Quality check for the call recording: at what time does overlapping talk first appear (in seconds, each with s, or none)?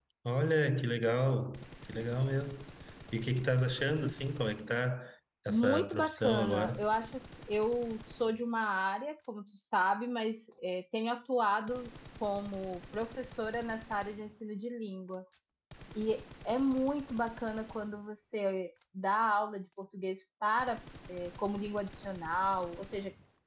5.5 s